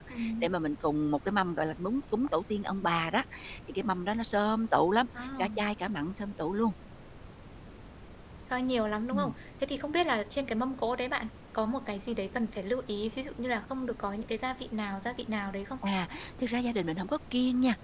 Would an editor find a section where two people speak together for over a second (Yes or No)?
No